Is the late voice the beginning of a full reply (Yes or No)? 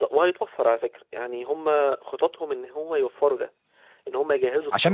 Yes